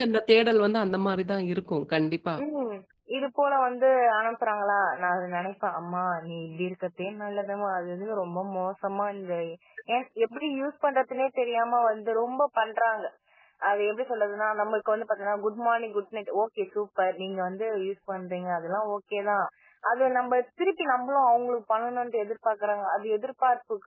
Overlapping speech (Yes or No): No